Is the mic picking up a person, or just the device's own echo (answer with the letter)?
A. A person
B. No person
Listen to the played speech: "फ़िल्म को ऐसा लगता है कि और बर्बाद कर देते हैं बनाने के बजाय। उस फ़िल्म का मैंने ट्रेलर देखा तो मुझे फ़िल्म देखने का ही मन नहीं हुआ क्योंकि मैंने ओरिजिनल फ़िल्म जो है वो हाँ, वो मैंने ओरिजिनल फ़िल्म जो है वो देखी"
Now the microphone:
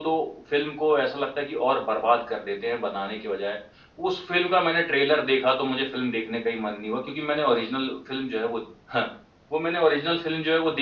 B